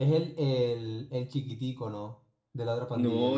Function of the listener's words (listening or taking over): taking over